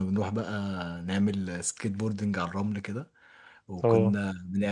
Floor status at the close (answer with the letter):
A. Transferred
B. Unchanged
B